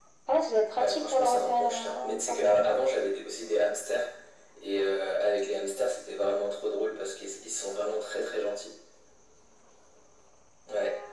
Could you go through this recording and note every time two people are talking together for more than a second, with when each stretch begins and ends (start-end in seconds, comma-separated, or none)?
0.8-2.8